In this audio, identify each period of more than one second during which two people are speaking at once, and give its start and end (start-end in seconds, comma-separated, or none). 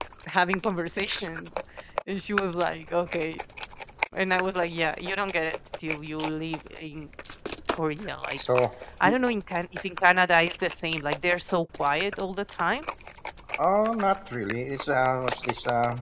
none